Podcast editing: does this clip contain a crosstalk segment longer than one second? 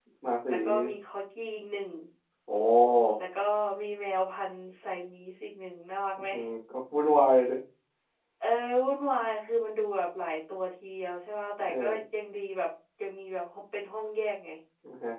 No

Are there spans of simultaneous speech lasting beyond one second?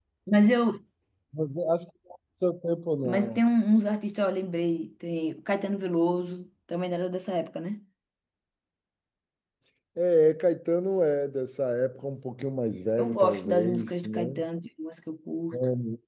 Yes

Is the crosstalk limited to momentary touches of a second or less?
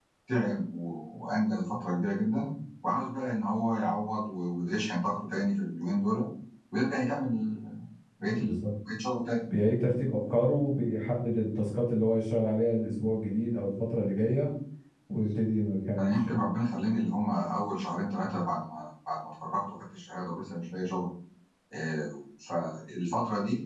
Yes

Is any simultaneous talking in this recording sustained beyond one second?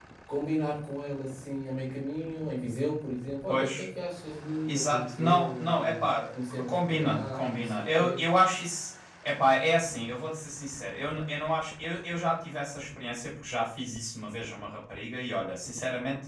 Yes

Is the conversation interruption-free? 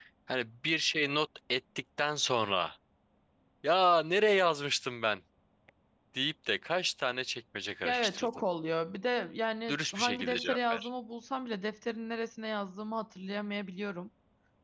No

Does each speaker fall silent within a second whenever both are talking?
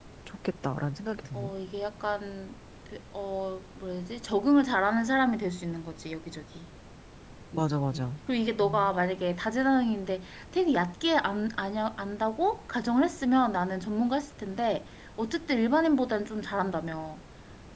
Yes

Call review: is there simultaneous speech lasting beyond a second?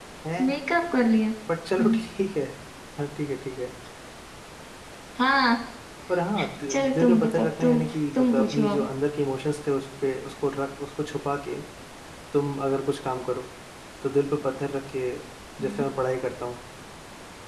Yes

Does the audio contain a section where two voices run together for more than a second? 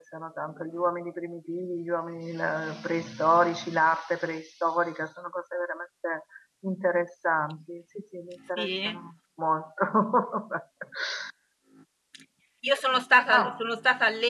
No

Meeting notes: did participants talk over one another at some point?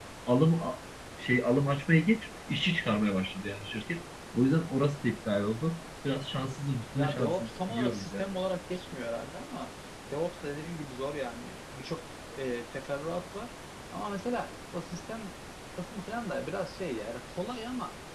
Yes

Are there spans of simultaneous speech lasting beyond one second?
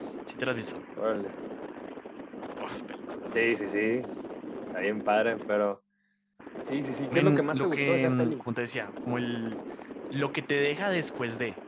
Yes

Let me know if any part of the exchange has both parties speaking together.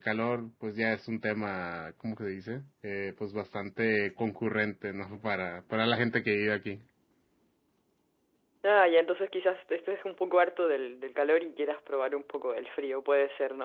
No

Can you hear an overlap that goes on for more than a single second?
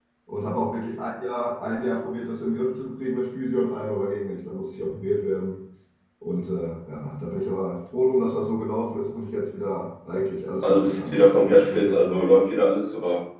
Yes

